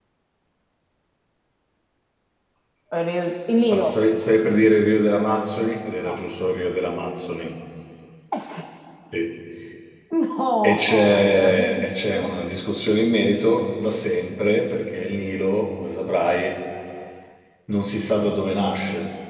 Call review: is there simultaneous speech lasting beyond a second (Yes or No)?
Yes